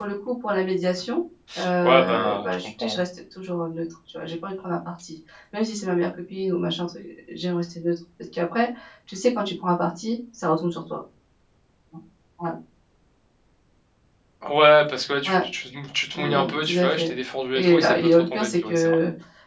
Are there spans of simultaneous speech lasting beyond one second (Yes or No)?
Yes